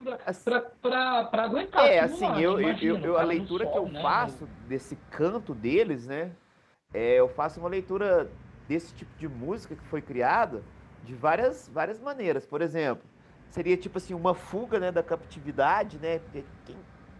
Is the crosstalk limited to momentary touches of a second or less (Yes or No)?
No